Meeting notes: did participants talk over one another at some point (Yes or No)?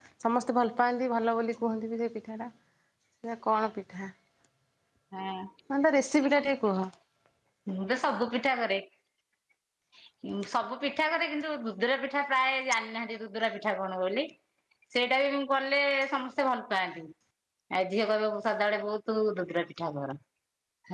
No